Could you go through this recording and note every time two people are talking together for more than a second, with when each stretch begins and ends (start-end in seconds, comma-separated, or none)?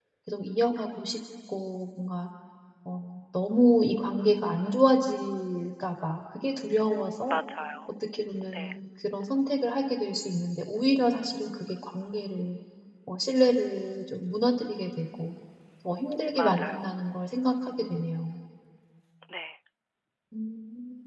none